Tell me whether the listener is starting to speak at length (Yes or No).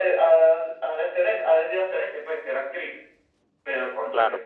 No